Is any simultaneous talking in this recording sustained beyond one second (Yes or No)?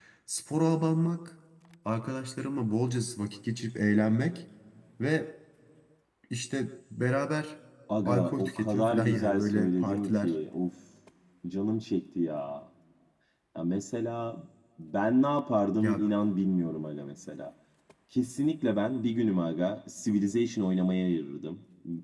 Yes